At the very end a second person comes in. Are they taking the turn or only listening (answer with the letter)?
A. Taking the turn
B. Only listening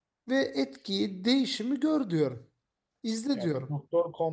A